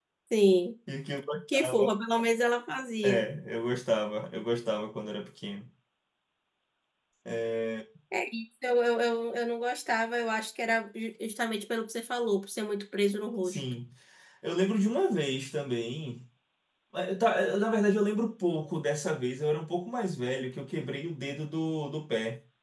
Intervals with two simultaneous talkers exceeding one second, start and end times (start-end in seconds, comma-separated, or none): none